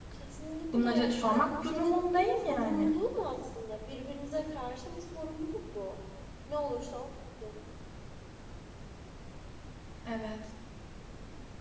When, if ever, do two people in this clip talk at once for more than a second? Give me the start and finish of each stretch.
0.7-2.9

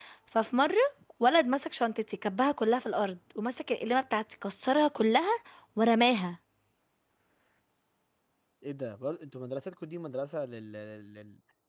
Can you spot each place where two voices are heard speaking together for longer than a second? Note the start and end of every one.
none

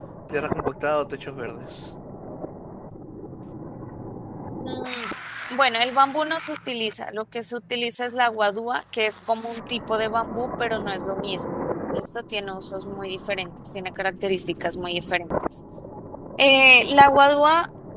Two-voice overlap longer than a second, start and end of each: none

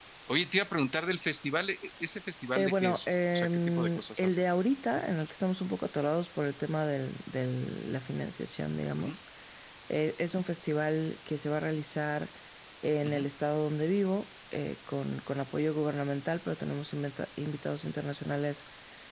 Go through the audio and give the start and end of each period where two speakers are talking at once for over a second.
2.6-4.4

